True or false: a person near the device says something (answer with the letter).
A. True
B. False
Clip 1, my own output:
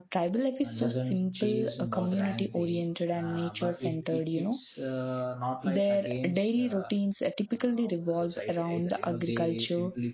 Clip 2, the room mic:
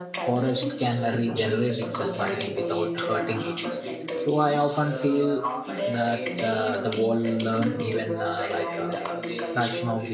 A